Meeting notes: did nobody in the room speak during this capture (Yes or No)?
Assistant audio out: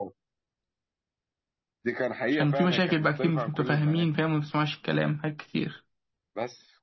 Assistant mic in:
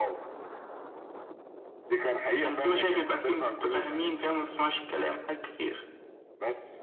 Yes